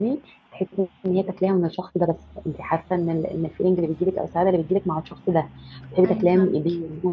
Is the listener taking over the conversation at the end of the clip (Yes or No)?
No